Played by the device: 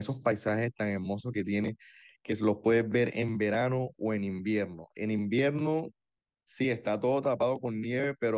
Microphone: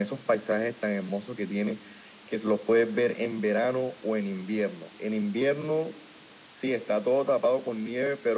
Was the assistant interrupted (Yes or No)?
No